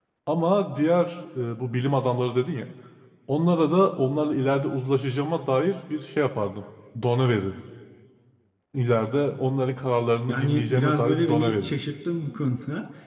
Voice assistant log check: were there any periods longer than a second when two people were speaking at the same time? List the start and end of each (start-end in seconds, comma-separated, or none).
10.3-11.7